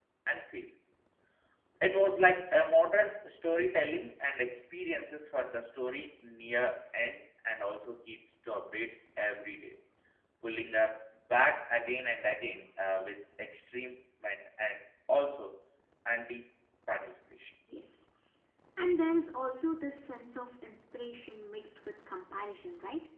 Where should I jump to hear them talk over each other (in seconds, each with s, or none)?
none